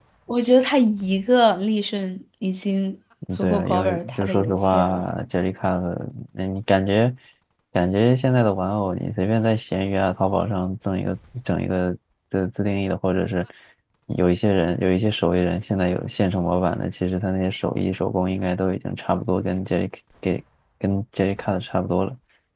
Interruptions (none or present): present